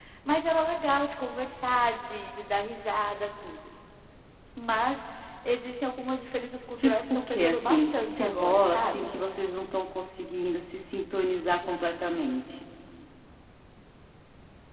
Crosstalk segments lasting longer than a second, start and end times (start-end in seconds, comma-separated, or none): 6.8-9.1